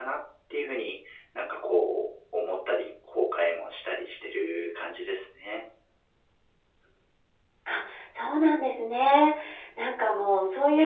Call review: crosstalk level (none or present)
none